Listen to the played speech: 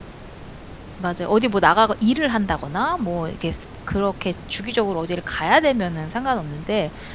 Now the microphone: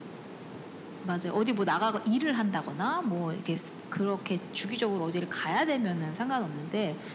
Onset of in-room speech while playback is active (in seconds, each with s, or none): none